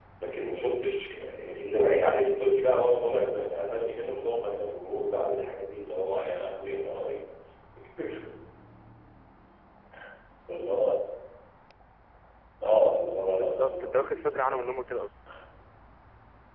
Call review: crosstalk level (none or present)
present